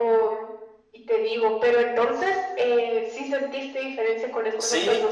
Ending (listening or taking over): taking over